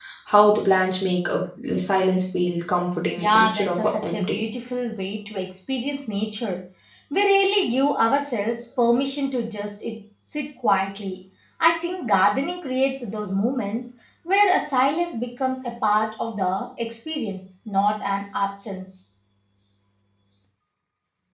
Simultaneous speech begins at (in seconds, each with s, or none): 3.2 s